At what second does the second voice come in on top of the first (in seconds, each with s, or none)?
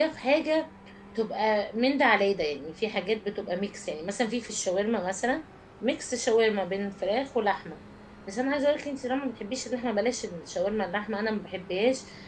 none